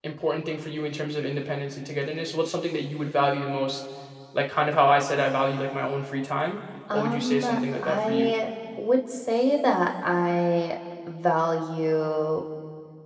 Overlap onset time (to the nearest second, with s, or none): 7 s